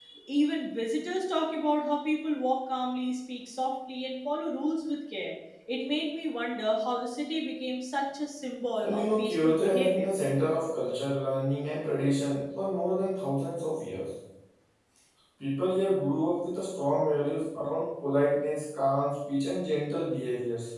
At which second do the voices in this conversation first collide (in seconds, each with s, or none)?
8.8 s